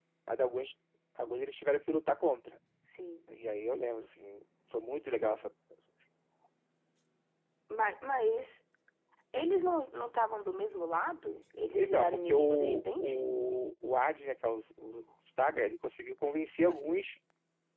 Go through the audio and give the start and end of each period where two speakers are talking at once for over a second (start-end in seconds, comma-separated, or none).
11.8-13.2